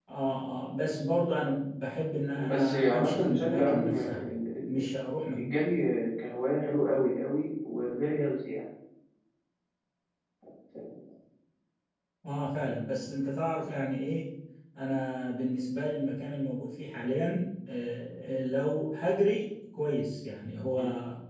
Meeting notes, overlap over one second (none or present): present